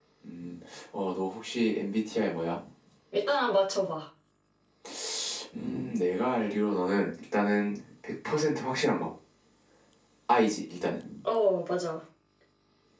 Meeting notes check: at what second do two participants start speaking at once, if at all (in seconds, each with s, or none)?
none